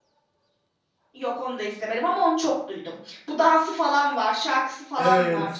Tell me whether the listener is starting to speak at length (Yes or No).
Yes